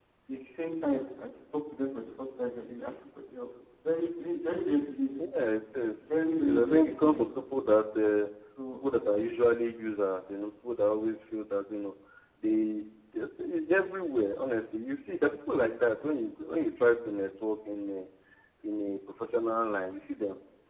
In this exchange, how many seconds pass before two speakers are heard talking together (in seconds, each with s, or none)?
6.0 s